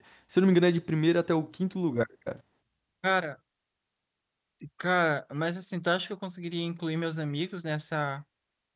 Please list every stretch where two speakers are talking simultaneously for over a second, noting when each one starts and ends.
none

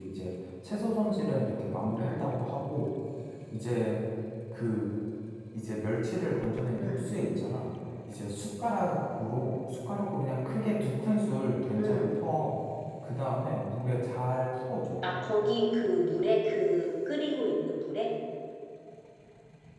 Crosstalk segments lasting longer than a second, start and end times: none

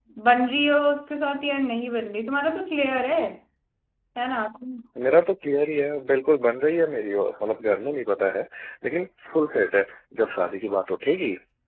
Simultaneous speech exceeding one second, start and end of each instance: none

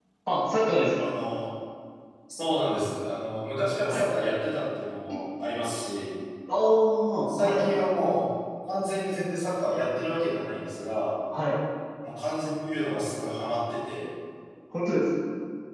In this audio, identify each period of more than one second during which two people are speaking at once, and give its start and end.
none

